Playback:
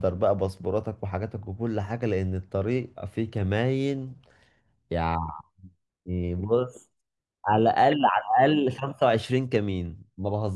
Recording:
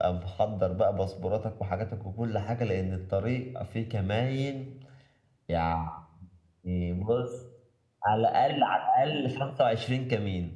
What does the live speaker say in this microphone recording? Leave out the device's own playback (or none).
none